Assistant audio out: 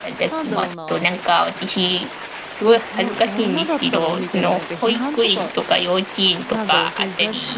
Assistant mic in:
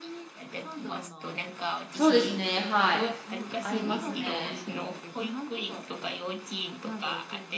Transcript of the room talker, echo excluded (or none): そうですね、はい。ありますね。